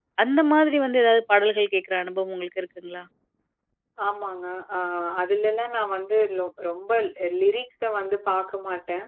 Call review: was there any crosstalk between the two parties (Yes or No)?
No